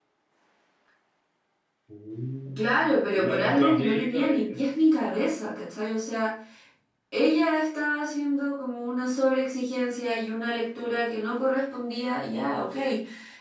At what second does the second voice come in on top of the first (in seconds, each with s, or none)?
2.5 s